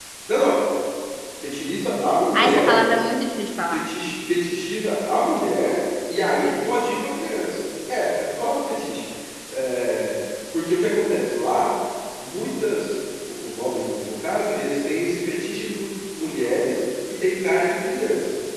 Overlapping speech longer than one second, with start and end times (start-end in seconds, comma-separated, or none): none